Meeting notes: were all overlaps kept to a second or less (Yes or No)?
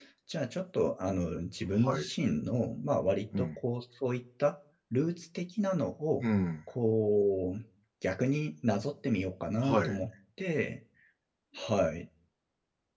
Yes